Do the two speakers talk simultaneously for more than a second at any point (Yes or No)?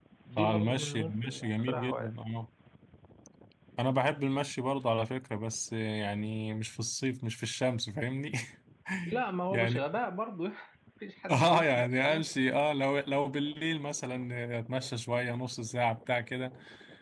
Yes